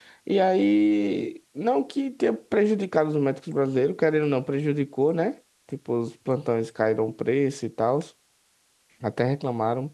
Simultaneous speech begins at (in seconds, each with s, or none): none